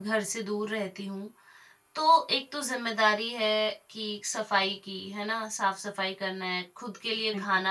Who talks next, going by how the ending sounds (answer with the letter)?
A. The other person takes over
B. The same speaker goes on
B